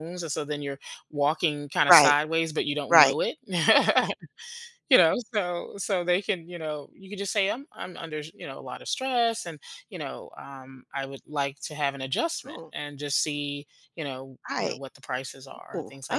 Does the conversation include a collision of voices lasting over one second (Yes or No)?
No